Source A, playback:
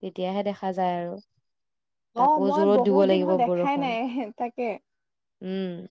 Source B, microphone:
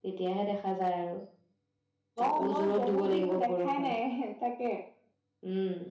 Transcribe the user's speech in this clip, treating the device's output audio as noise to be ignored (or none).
চাবলে